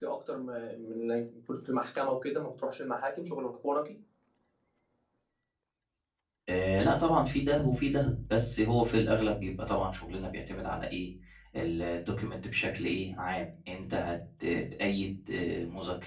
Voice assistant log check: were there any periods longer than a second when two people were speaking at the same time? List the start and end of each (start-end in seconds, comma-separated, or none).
none